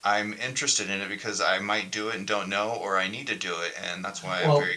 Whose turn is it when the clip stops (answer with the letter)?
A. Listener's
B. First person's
A